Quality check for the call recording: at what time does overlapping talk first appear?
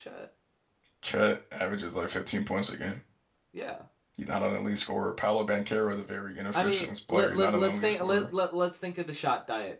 6.5 s

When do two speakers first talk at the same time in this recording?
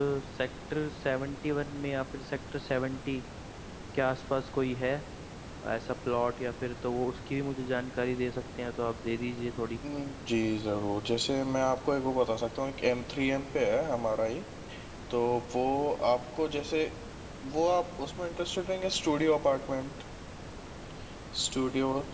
none

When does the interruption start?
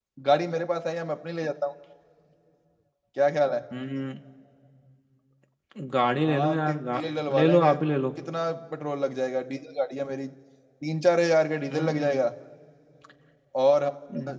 6.2 s

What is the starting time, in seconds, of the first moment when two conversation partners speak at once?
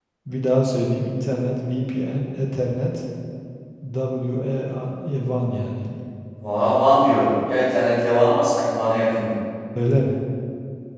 none

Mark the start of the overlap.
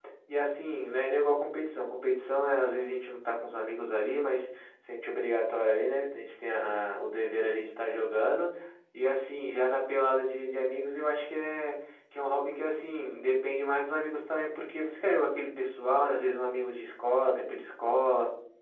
none

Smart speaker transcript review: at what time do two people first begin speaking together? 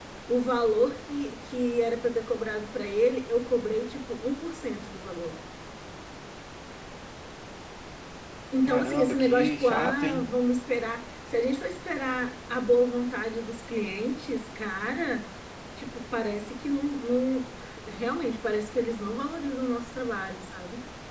8.7 s

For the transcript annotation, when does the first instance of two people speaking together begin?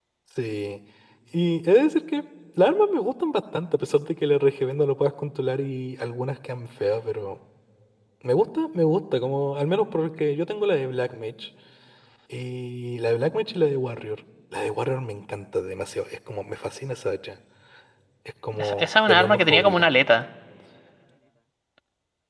18.6 s

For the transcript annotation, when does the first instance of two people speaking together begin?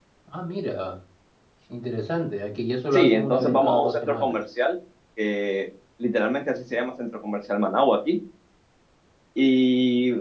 2.9 s

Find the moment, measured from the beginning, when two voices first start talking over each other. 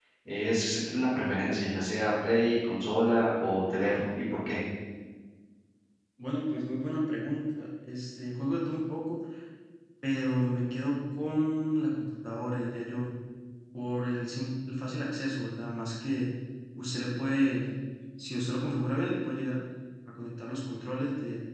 none

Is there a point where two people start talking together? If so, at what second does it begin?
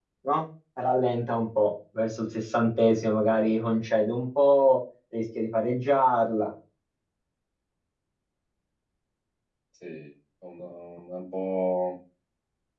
none

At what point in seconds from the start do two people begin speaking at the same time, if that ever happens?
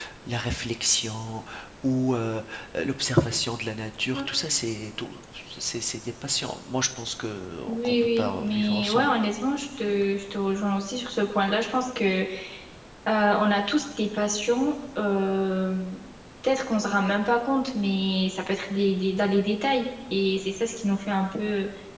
7.6 s

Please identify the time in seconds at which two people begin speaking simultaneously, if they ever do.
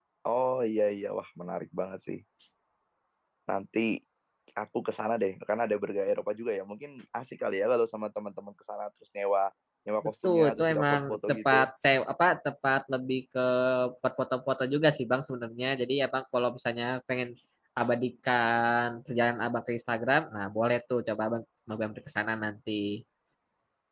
10.2 s

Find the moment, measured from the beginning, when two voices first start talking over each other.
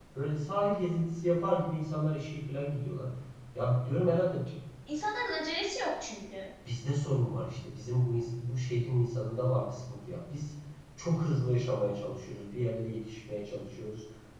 none

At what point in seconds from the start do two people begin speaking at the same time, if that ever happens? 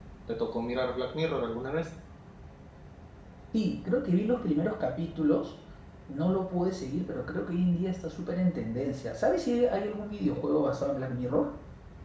none

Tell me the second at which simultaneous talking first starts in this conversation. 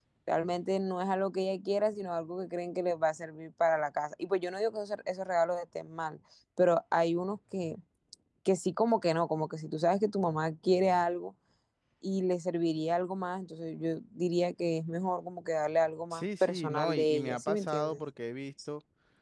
16.1 s

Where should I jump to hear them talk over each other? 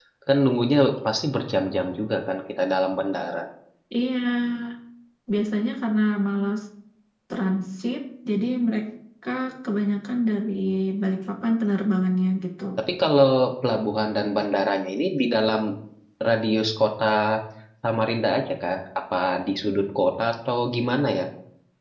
none

